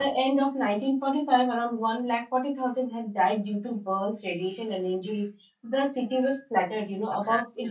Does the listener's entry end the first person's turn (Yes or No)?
No